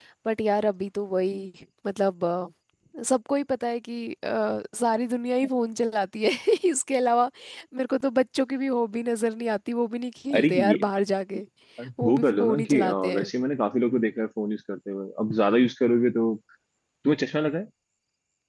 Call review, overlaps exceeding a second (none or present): present